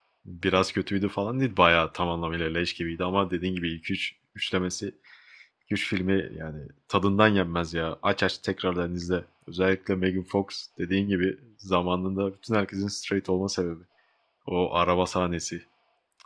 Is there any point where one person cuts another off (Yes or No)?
No